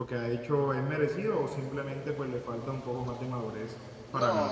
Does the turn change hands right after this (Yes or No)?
Yes